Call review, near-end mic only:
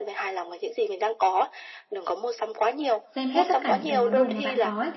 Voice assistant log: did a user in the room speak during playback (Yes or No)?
Yes